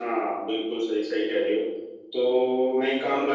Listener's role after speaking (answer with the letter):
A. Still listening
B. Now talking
A